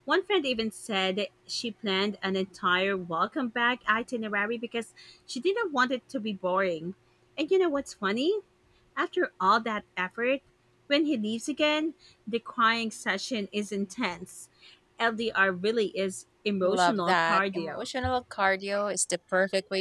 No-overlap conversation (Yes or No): No